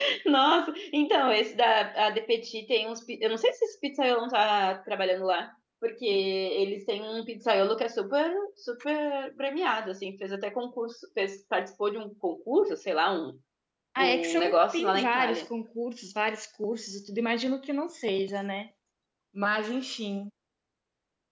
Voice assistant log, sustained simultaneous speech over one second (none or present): present